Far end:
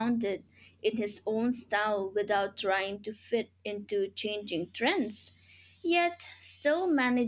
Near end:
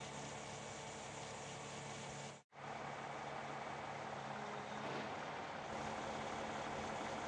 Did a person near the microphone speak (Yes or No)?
No